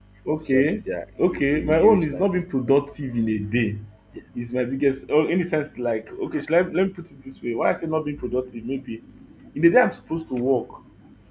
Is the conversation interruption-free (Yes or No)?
No